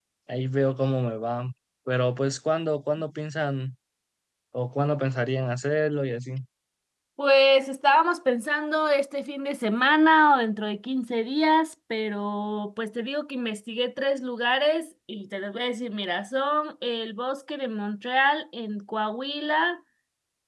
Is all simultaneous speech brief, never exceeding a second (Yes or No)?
Yes